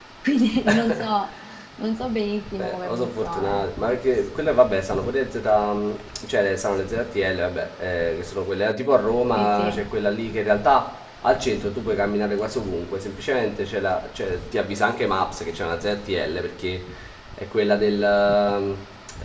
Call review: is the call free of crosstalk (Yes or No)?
No